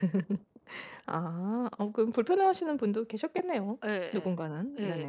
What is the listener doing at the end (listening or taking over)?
taking over